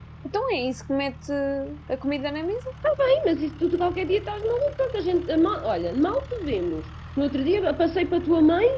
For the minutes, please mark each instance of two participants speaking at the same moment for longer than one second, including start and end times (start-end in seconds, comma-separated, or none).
none